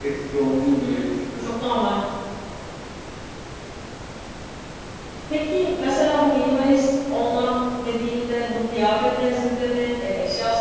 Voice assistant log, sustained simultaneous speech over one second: none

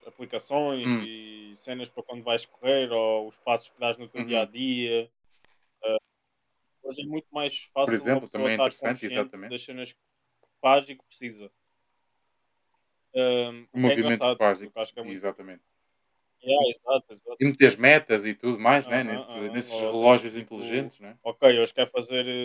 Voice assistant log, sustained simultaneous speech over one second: present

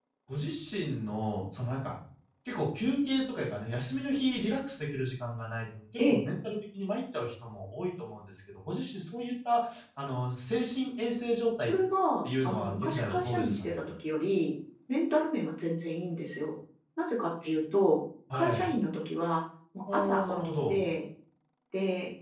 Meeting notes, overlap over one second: present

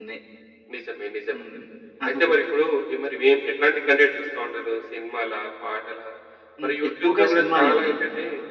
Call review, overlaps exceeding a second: present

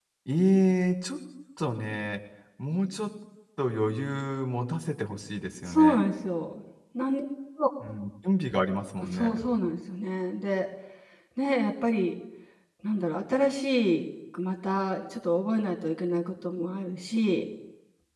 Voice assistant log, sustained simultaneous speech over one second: none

